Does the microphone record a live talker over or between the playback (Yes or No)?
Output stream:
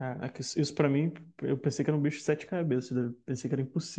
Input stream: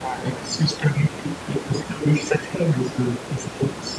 No